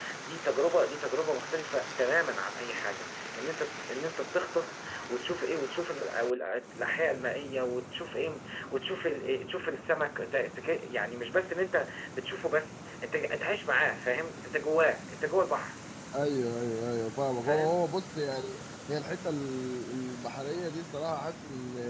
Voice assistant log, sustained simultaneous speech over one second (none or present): none